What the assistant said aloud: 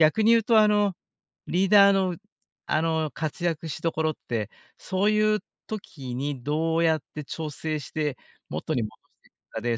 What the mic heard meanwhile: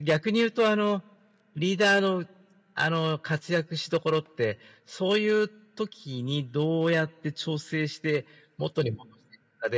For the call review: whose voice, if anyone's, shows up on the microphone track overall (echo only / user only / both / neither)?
echo only